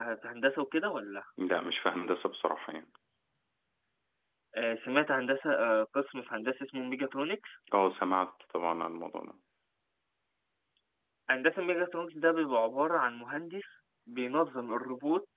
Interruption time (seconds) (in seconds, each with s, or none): none